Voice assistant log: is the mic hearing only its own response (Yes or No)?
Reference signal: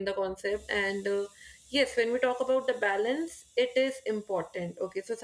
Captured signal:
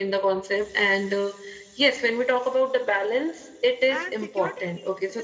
No